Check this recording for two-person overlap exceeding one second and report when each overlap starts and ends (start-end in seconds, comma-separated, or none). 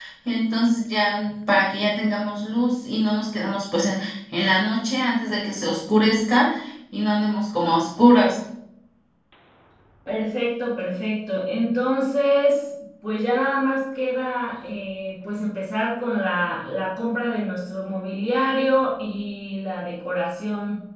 none